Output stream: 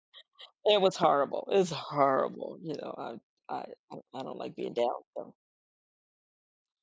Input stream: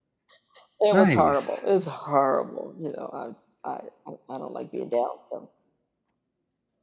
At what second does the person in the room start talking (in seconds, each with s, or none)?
0.9 s